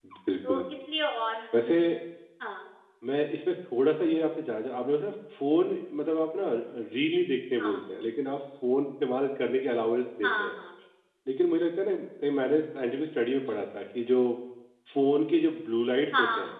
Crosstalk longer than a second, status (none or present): none